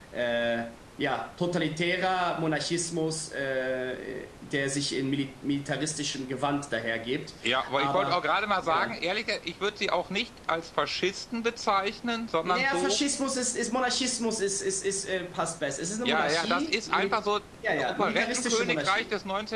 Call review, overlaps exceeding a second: present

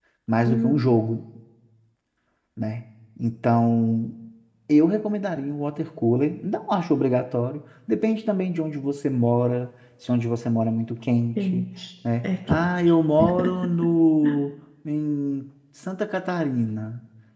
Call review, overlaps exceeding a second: none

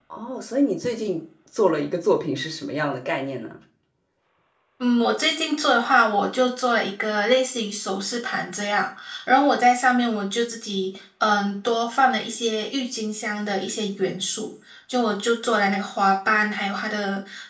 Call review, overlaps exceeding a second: none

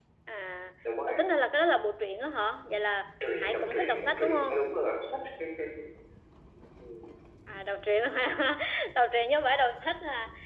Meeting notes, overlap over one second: present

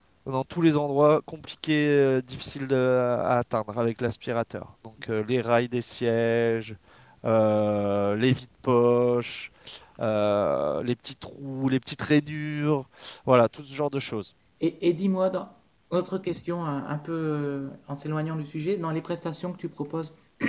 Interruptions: none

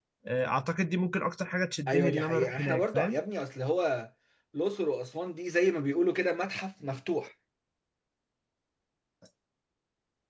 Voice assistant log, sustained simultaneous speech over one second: present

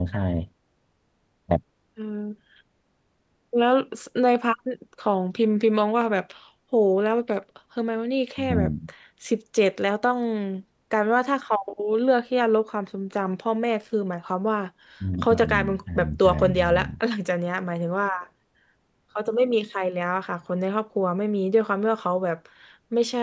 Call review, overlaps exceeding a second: present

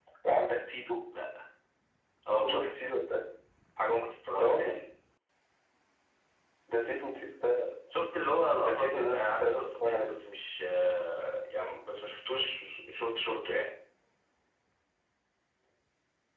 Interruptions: present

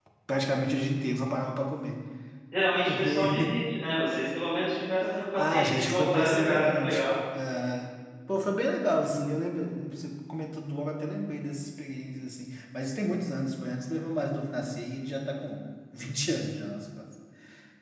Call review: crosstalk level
present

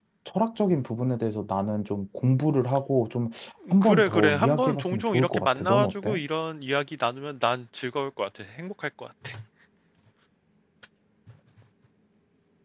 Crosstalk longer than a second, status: present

